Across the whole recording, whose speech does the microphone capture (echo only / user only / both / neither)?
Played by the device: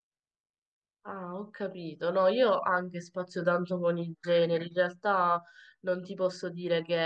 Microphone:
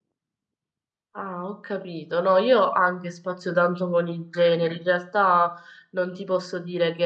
echo only